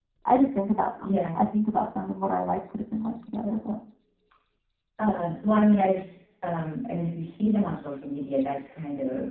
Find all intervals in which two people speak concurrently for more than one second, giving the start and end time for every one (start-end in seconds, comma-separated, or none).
none